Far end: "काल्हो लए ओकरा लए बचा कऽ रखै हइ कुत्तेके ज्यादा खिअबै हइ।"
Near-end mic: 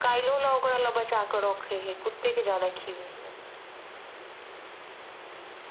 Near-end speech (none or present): none